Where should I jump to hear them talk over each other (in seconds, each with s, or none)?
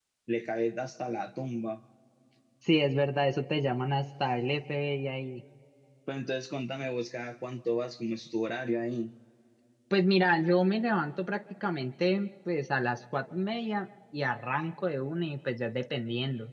none